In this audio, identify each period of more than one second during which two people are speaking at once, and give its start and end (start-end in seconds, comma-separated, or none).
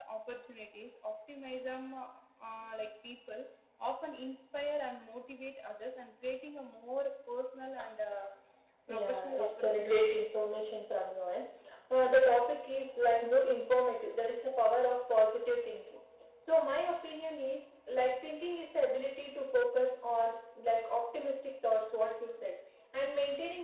8.9-10.5